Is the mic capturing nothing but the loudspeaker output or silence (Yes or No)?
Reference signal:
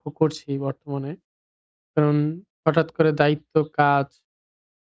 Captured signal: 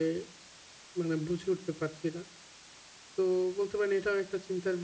No